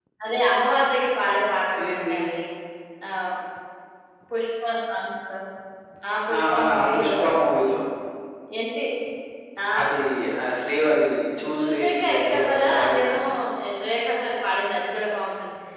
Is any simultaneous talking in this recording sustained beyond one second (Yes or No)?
Yes